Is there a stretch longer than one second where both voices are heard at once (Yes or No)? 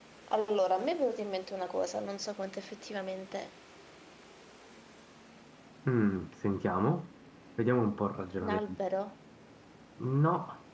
No